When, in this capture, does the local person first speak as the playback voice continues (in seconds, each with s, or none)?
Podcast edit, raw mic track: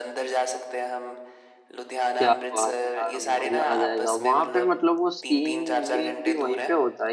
2.2 s